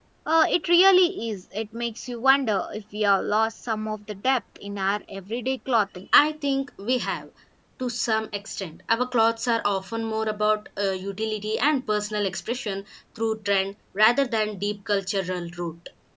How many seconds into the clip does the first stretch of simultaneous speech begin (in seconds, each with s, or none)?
none